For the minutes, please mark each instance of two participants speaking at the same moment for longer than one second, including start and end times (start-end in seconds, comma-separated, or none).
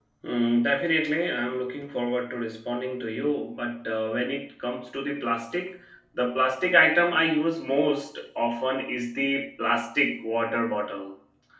none